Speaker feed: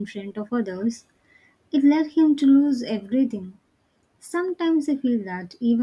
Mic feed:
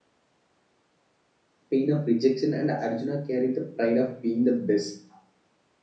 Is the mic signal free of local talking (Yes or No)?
No